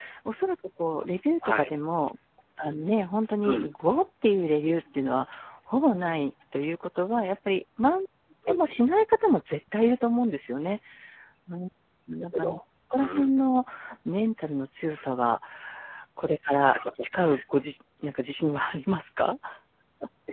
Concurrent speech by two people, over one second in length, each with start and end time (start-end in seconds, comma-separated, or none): none